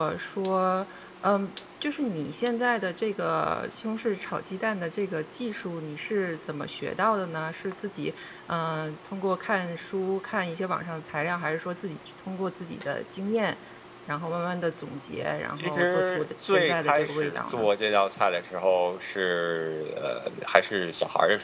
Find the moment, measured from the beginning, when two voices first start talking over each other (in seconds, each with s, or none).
15.6 s